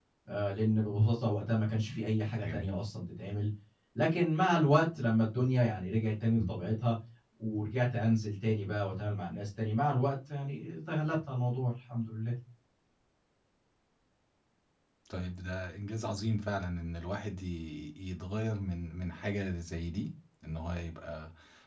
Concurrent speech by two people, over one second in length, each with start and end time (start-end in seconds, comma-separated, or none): none